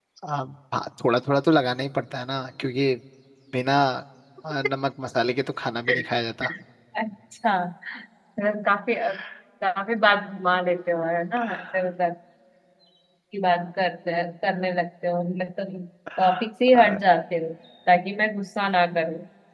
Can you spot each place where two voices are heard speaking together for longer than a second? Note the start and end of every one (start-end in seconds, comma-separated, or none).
none